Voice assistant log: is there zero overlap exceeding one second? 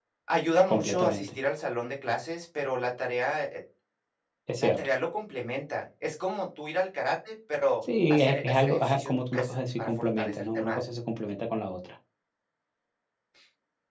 No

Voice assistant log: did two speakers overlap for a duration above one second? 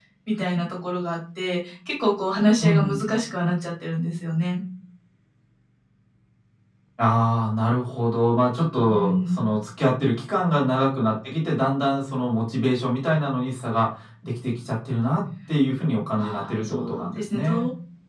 Yes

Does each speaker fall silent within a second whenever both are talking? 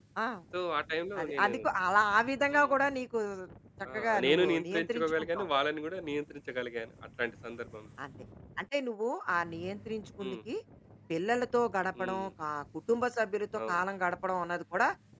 No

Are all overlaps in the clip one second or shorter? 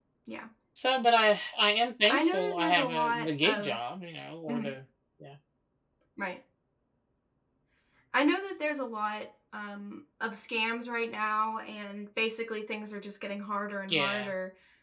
No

